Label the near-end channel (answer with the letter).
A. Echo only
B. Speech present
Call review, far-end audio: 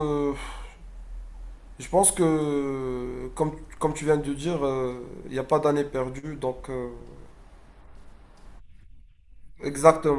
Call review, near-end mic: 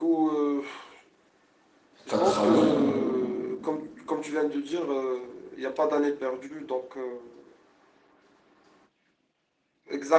B